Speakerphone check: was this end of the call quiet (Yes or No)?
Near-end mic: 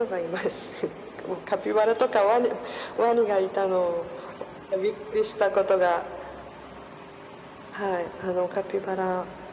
Yes